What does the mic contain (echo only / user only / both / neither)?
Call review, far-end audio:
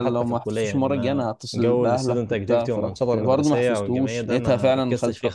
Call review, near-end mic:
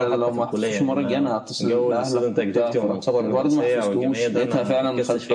echo only